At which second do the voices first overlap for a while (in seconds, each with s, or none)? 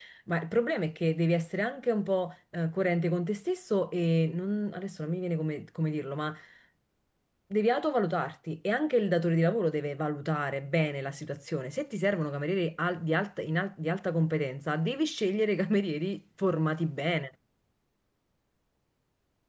none